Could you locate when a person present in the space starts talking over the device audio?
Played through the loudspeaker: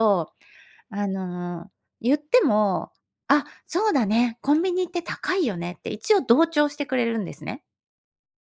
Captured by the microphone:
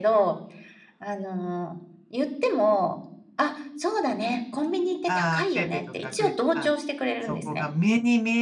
5.1 s

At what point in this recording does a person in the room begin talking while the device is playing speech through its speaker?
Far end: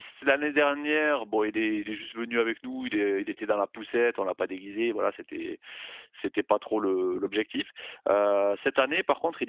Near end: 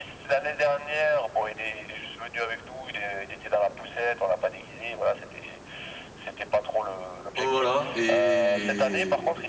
7.4 s

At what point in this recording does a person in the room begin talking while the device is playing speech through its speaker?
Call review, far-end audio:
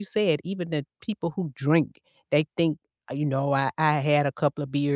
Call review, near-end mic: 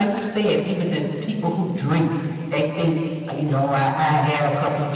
none

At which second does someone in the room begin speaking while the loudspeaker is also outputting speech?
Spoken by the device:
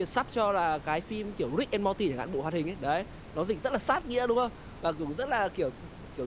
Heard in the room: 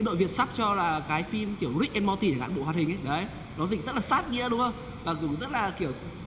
none

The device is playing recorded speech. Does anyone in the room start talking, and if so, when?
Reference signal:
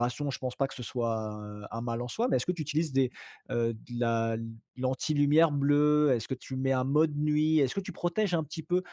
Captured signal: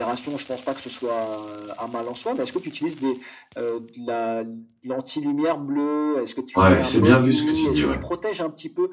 6.6 s

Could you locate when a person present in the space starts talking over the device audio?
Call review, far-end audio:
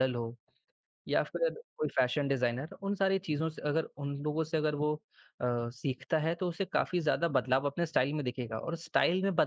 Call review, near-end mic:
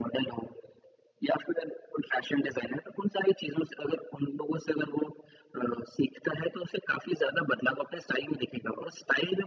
none

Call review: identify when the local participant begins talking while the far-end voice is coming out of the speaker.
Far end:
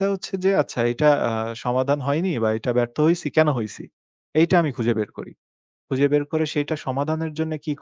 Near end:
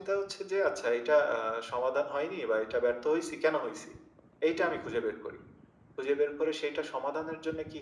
none

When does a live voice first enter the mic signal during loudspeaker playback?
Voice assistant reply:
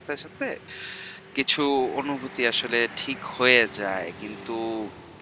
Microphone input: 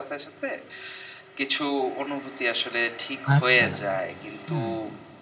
3.4 s

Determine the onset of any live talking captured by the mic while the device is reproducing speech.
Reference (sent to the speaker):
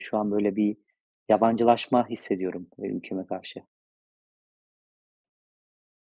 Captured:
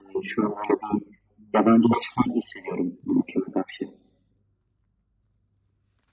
none

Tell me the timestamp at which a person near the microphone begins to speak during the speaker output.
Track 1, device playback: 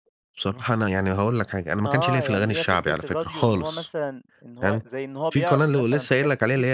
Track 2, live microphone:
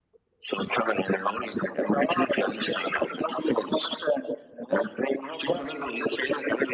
none

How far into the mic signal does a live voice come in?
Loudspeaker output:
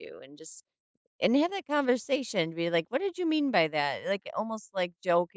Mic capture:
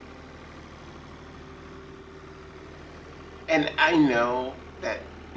3.5 s

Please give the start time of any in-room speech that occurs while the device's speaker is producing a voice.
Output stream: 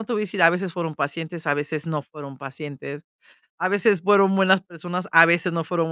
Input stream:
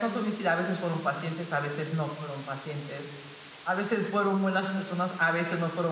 none

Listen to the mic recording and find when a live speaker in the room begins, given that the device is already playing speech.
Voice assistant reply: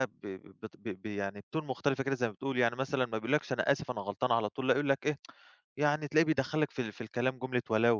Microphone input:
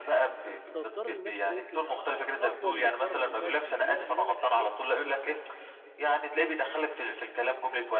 0.7 s

